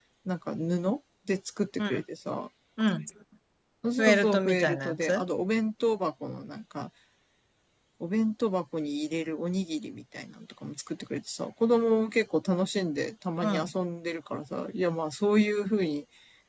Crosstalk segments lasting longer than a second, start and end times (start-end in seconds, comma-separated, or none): 4.0-5.2